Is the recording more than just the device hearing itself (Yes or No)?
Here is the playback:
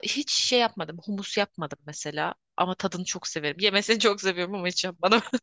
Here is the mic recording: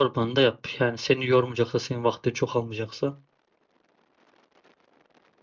Yes